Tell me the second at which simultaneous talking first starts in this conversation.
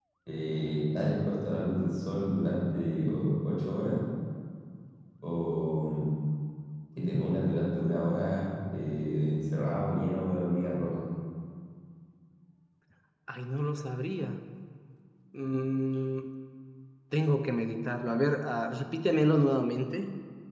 none

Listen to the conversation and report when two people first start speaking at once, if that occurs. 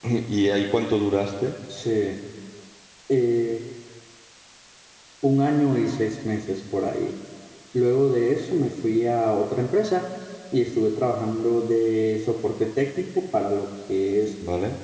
none

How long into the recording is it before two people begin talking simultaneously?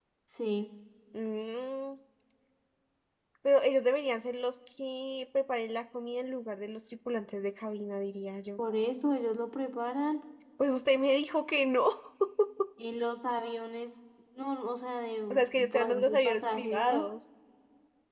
15.3 s

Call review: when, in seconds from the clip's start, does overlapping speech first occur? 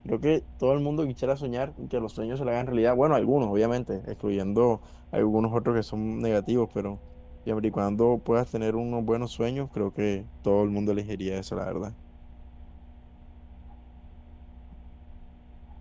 none

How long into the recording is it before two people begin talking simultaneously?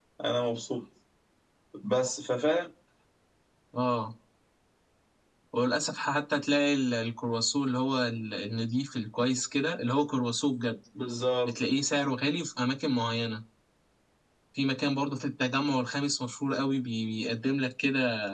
none

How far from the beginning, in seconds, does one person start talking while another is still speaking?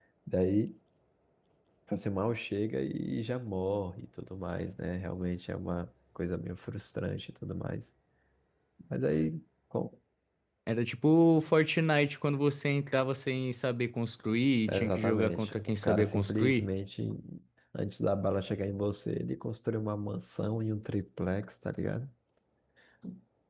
14.7 s

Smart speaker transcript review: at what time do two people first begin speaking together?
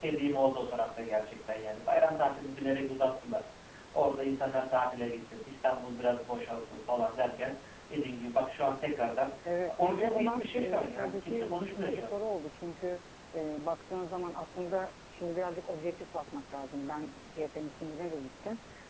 9.8 s

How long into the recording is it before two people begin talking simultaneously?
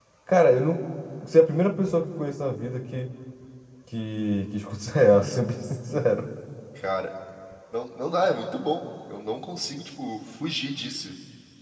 none

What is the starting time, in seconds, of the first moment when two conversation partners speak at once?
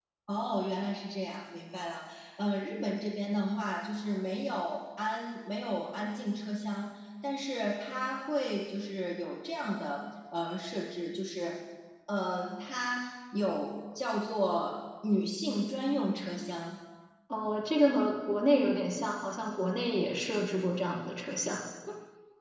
none

